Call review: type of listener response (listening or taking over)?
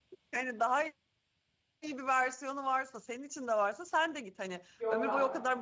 listening